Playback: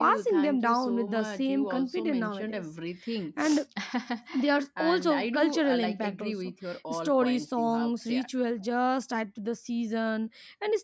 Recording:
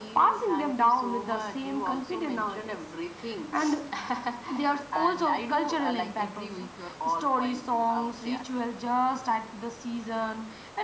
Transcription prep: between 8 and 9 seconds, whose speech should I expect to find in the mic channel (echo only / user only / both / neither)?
echo only